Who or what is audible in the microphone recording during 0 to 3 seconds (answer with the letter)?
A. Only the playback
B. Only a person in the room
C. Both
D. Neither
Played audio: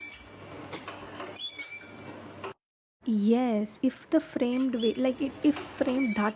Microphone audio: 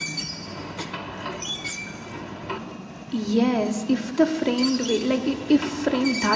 D